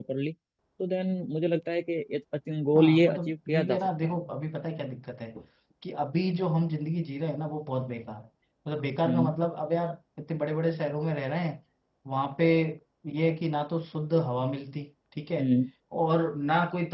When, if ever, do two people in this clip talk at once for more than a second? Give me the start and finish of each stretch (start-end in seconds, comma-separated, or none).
2.8-4.1